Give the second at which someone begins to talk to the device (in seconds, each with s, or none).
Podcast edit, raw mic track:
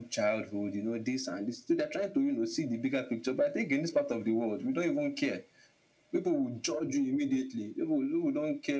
none